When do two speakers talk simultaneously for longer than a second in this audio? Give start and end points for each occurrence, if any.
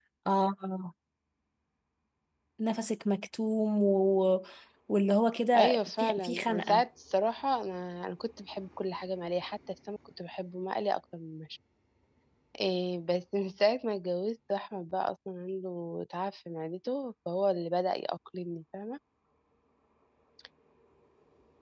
5.6-6.8

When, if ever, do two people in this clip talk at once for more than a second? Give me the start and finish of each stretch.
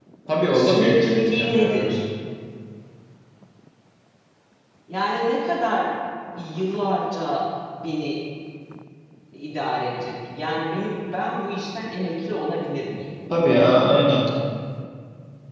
0.5-1.9

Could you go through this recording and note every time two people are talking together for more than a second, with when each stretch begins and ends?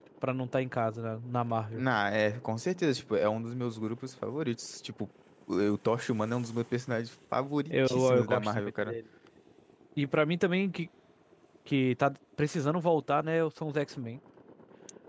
7.7-8.9

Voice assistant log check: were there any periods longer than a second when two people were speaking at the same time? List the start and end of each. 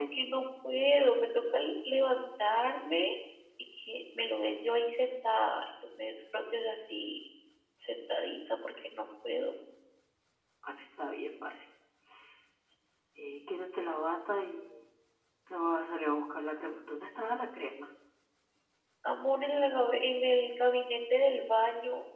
none

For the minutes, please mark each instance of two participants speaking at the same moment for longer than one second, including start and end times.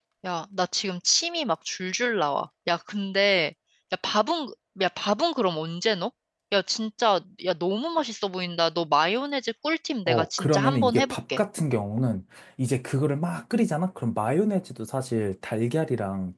10.1-11.4

